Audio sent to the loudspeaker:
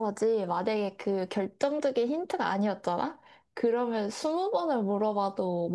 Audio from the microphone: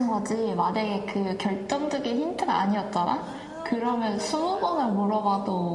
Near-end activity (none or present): present